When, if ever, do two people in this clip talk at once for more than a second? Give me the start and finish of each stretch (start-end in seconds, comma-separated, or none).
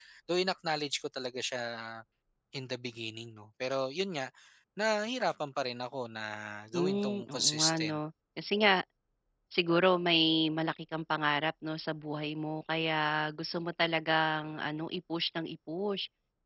6.7-8.0